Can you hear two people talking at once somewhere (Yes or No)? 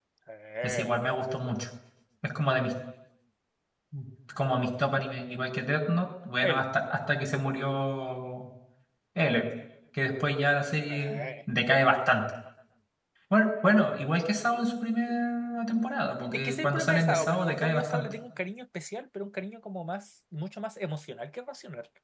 Yes